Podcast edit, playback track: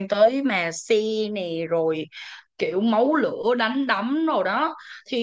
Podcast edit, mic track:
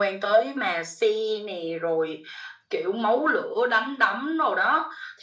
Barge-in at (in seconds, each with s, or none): none